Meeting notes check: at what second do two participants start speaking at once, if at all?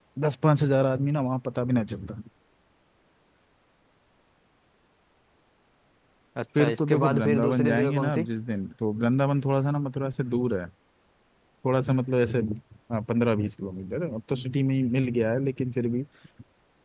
6.5 s

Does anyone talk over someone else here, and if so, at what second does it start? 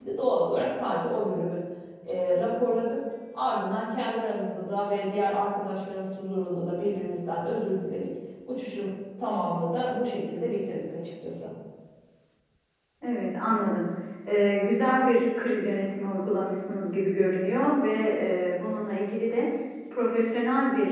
none

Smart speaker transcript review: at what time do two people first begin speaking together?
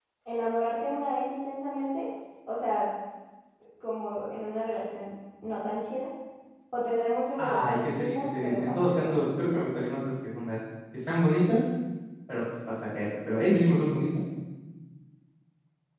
7.4 s

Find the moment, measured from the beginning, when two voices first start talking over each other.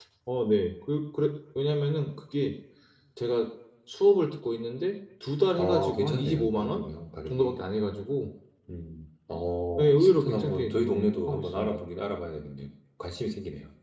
5.6 s

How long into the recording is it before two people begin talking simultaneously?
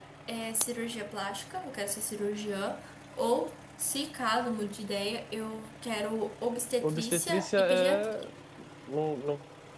6.8 s

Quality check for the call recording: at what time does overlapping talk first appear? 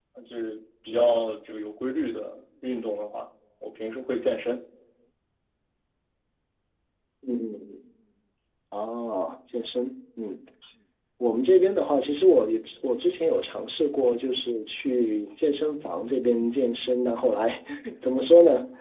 none

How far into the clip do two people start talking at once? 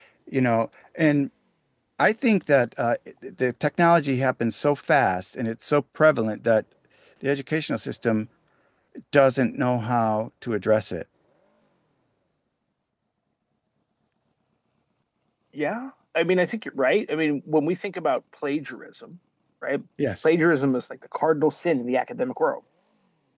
none

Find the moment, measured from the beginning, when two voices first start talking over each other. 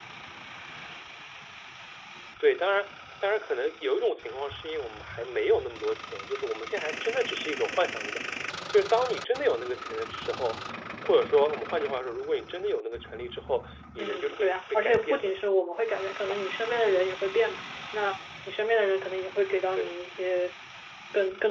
14.0 s

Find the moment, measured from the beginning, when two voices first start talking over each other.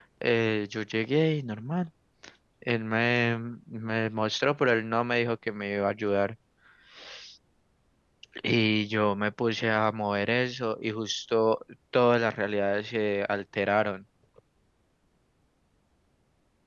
none

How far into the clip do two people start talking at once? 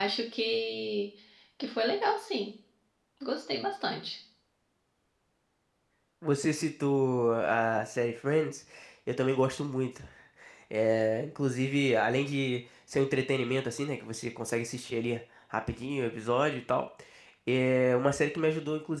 none

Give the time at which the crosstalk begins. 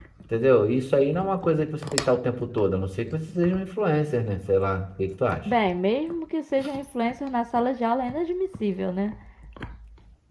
none

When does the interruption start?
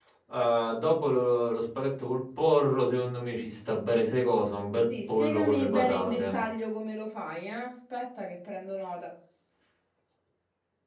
5.1 s

